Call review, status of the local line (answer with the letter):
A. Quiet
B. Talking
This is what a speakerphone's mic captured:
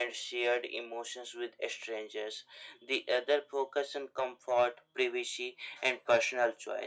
A